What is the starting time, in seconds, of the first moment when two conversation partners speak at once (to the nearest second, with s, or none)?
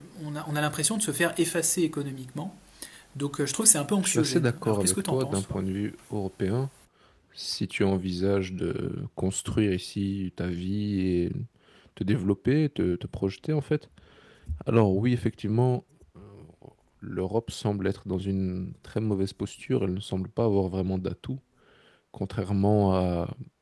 4 s